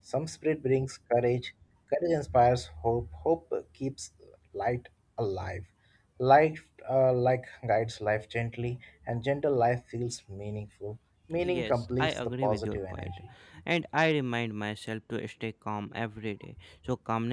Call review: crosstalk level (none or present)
present